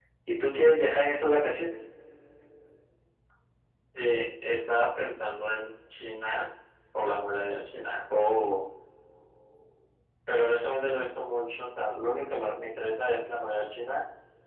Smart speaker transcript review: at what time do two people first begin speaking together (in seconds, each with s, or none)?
none